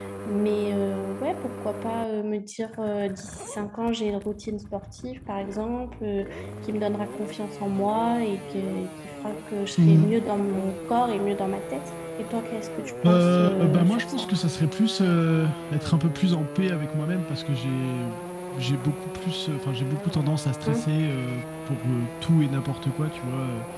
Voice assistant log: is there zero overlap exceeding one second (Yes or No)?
No